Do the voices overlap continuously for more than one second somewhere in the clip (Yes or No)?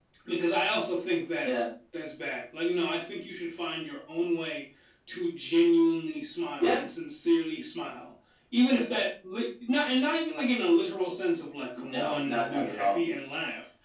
Yes